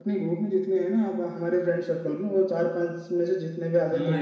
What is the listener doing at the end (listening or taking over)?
taking over